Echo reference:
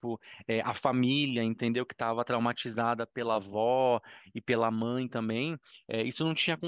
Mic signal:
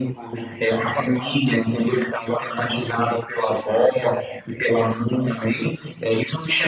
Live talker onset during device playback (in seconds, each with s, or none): none